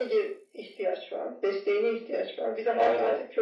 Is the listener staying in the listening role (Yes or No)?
Yes